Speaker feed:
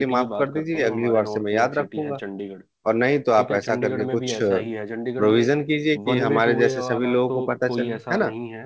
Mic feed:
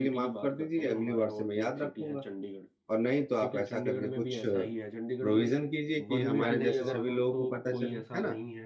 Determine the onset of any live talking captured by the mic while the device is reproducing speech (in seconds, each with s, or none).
6.4 s